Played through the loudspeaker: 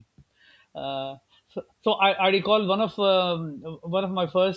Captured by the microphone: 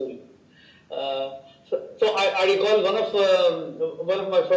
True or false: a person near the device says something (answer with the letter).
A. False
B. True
A